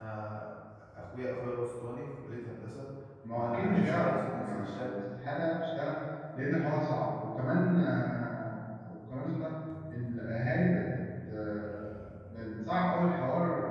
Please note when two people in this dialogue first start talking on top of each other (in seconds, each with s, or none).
3.3 s